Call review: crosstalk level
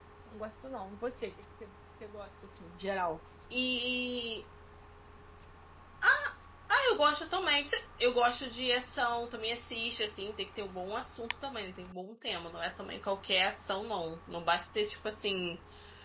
none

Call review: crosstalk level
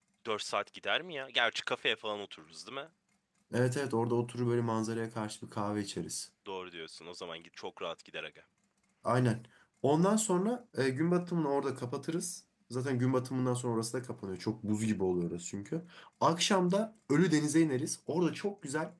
none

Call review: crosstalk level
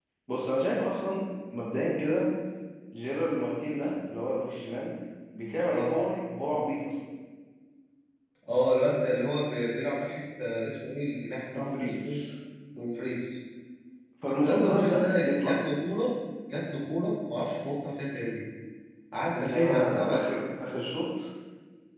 present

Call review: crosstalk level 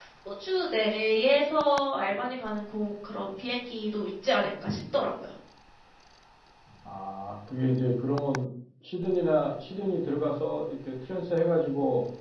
none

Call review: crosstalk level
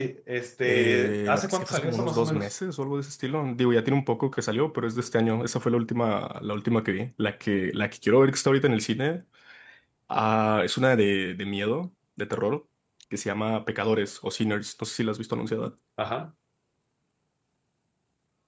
present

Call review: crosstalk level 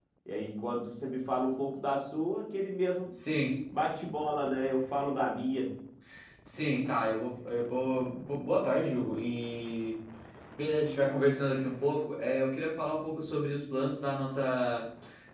none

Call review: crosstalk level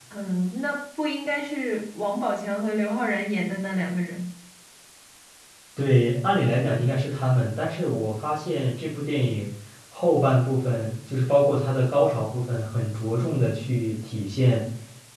none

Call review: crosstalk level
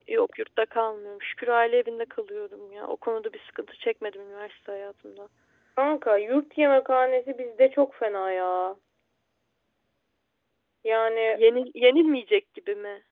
none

